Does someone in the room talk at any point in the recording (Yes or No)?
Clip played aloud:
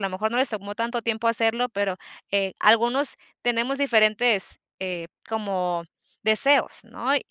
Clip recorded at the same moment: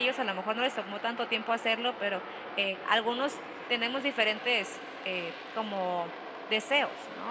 No